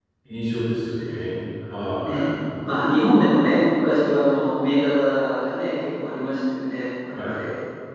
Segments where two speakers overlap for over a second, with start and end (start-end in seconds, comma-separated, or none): none